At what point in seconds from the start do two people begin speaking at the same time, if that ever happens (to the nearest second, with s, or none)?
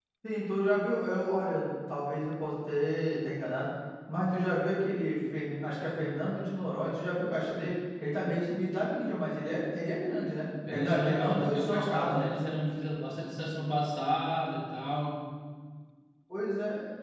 11 s